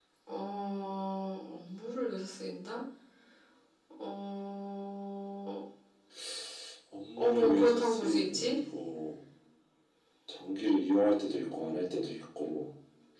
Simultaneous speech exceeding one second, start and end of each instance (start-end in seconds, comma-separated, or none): 7.2-8.5